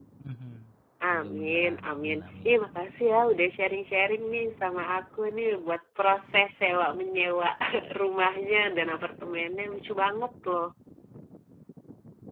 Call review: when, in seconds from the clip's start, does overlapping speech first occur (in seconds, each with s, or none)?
1.1 s